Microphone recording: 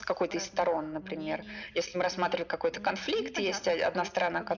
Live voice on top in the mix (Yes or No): No